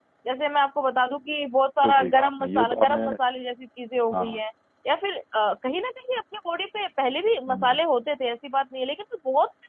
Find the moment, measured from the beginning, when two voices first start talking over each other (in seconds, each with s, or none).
1.8 s